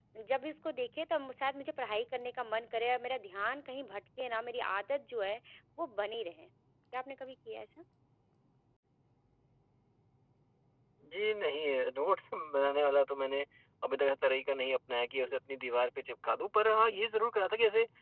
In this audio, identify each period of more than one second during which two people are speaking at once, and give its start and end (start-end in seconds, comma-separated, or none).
none